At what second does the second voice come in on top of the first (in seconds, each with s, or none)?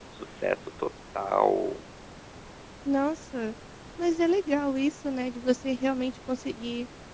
none